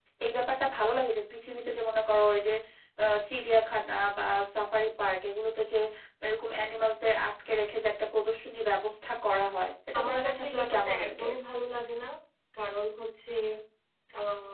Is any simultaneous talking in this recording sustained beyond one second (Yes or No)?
Yes